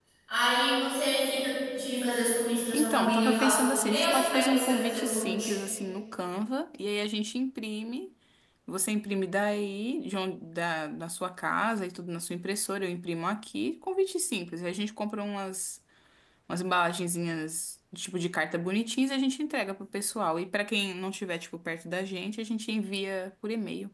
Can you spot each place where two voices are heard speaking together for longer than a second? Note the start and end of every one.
2.8-5.5

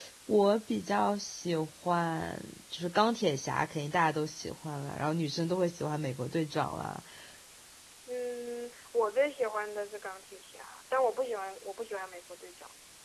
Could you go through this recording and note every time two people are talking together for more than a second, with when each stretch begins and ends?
none

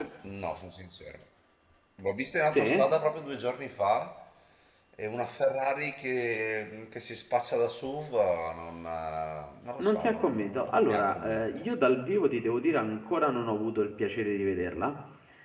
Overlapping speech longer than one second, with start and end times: 9.8-11.4

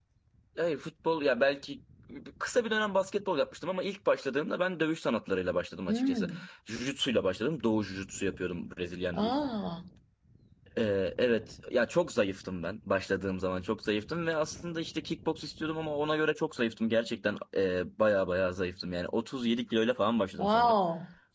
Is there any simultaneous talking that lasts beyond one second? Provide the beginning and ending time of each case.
none

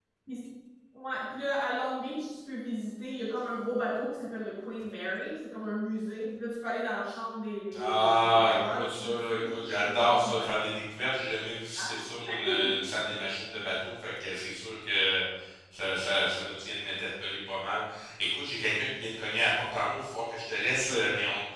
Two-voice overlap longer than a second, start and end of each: 7.8-10.5

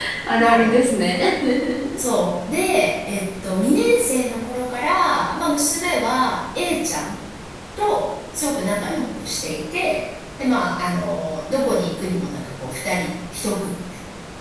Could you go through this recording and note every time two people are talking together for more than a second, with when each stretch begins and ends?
none

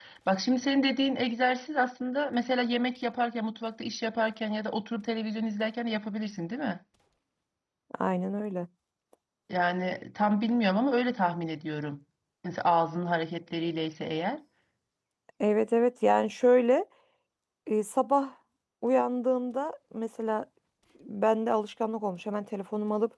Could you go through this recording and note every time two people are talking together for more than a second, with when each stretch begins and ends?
none

